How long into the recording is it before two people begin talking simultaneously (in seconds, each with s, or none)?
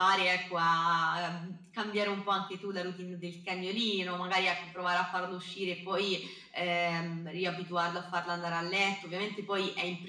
none